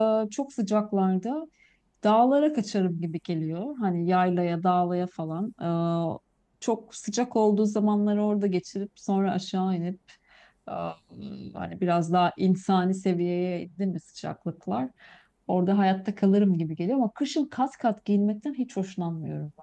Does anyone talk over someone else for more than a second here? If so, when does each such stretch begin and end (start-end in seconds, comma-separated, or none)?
none